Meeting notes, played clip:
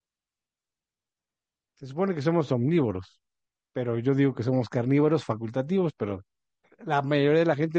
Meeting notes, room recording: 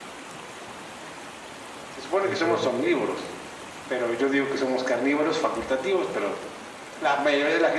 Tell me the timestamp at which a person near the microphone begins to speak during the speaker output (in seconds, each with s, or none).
2.2 s